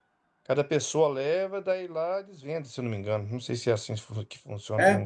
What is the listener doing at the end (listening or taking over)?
taking over